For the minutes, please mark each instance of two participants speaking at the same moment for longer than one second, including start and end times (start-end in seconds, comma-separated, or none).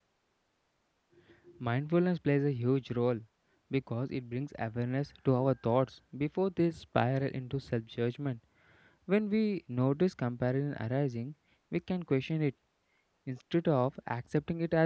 none